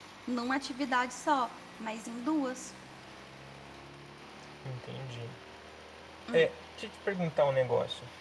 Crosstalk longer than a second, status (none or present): none